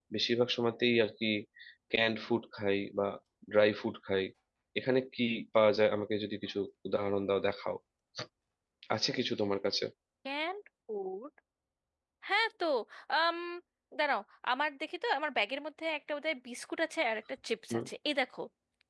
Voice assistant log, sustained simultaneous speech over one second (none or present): none